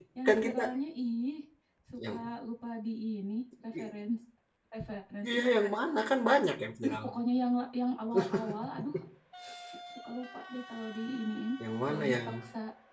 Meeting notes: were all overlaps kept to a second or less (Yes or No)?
Yes